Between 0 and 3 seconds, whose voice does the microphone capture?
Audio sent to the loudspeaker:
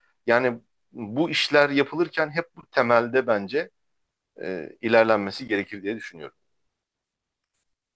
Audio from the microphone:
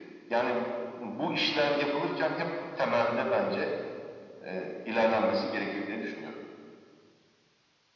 echo only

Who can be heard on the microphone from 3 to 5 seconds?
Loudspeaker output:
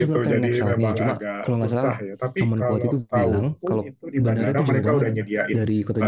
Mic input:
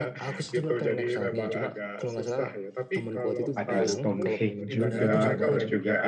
both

